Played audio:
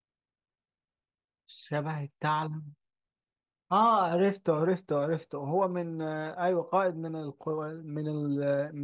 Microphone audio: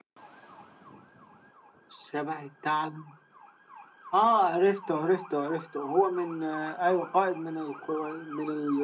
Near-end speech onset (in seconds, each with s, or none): none